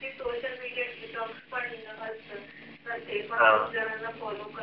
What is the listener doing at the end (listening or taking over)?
listening